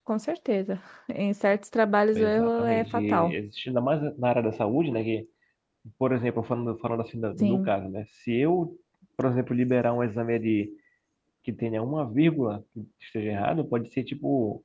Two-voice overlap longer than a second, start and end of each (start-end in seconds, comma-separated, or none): 2.1-3.3